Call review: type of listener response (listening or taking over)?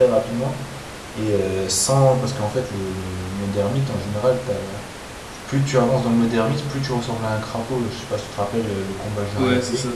taking over